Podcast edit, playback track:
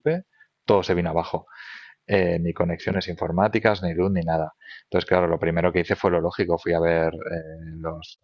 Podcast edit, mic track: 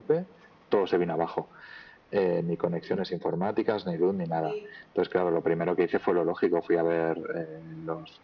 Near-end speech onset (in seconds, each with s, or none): 4.4 s